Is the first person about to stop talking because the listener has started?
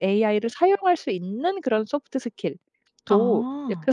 No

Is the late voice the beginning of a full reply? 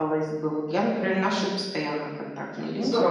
Yes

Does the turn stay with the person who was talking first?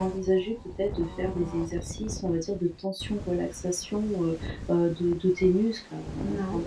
Yes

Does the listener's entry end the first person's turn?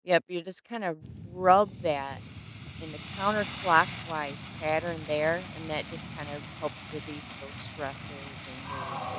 Yes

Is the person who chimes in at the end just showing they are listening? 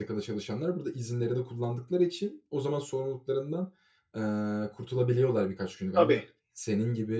Yes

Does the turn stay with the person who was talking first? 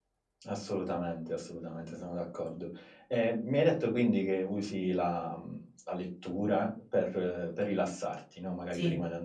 Yes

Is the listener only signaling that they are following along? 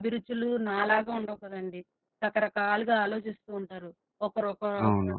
Yes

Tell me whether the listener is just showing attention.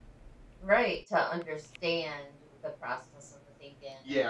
No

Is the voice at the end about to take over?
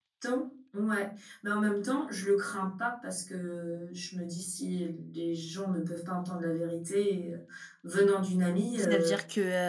Yes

